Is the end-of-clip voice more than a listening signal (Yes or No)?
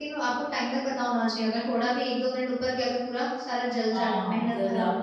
Yes